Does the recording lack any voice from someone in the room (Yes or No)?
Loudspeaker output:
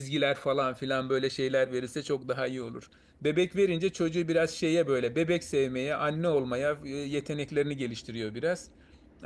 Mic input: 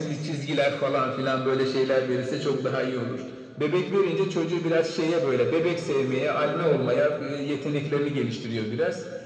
Yes